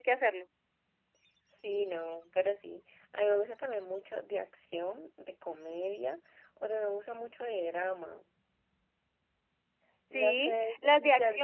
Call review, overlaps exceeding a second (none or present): present